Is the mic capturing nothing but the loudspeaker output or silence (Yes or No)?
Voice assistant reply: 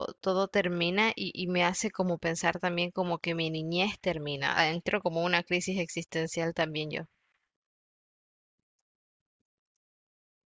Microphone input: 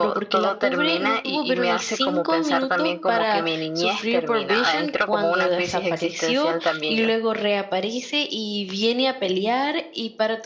No